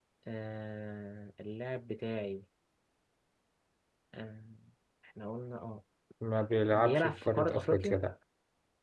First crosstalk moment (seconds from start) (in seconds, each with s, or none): 6.7 s